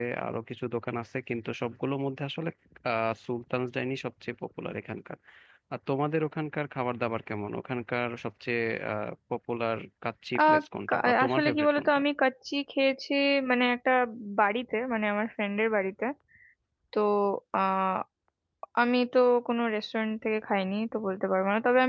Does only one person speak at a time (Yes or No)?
No